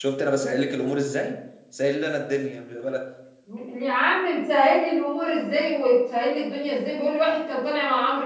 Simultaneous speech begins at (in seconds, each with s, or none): none